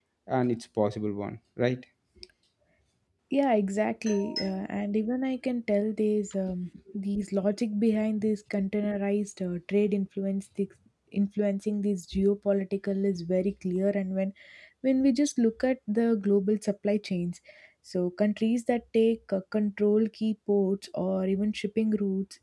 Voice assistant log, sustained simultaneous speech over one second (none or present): none